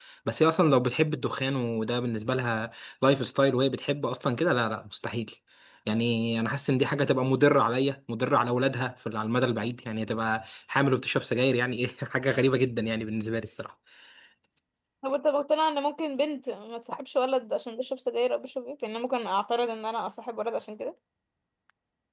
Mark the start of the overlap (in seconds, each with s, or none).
none